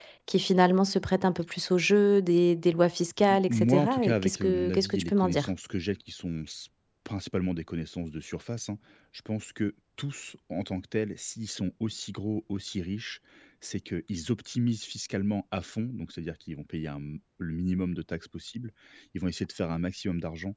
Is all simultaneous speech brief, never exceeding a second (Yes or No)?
No